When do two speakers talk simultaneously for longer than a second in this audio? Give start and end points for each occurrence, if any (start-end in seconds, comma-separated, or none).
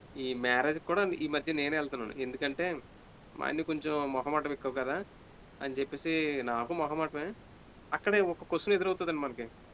none